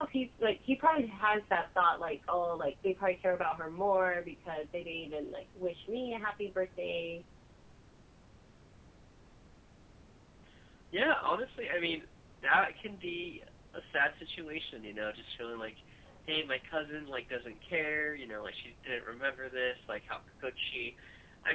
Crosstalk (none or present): none